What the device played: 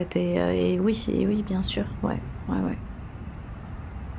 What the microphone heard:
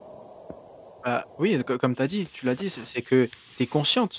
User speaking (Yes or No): Yes